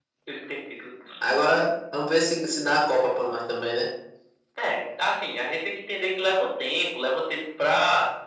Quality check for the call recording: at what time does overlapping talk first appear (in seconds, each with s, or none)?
none